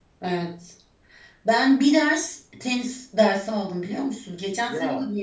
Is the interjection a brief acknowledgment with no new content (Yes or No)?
Yes